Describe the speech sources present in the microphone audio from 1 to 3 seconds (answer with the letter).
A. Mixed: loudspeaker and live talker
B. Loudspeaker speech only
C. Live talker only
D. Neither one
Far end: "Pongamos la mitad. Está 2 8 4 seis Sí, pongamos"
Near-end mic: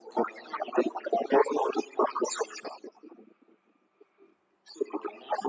B